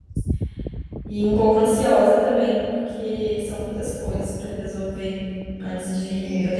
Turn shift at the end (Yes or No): No